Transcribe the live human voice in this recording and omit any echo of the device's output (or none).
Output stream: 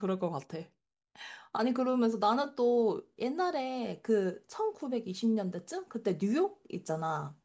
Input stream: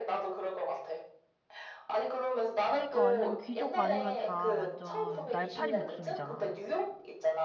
그니까 완전 귀족 아니면 다 완전 날파리 목숨이잖아.